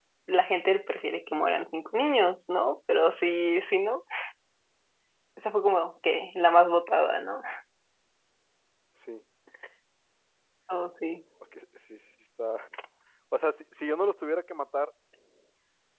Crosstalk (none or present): none